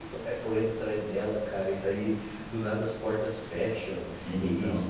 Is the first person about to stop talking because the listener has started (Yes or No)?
No